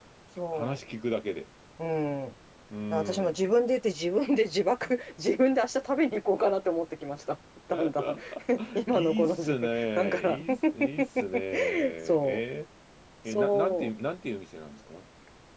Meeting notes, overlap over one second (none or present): present